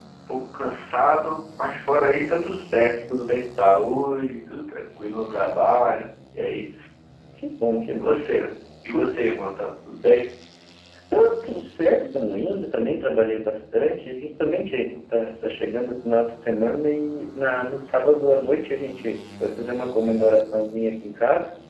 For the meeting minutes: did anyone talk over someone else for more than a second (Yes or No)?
No